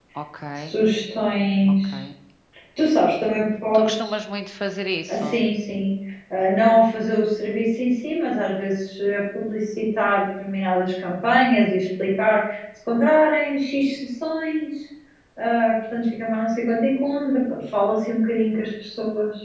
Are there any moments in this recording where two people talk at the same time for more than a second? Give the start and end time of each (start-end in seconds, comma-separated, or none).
none